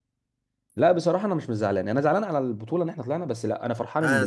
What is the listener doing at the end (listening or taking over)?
taking over